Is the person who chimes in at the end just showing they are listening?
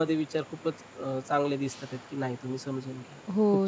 No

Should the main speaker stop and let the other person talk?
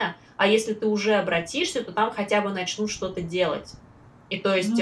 No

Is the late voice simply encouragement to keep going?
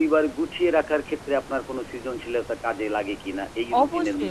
No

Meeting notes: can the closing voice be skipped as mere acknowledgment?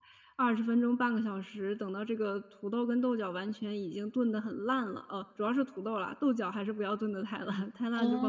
No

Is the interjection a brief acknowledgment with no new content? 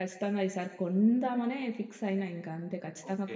No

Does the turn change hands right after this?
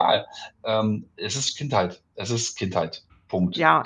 Yes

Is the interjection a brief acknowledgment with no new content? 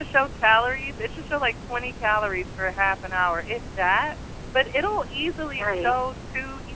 Yes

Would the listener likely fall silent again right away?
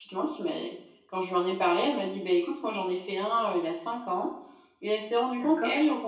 Yes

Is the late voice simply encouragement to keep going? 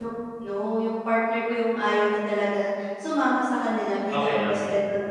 Yes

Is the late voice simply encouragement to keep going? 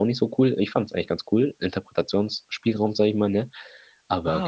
No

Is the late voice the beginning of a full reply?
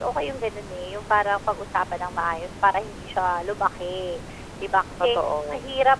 No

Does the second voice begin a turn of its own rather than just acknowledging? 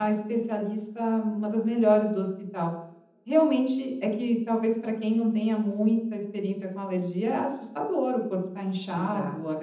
No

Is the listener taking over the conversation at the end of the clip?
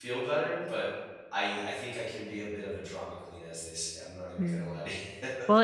Yes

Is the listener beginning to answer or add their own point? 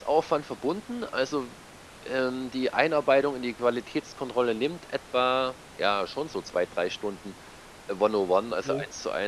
No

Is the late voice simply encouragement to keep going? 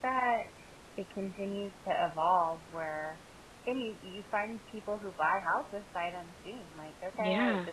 Yes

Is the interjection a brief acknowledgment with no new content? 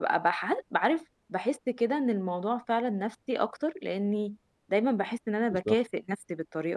Yes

